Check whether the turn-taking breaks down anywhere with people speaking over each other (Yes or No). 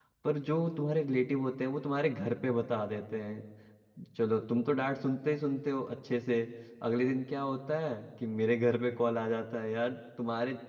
No